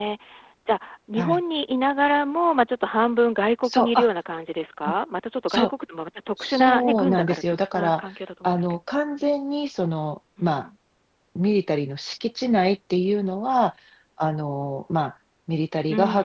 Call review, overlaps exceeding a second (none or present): present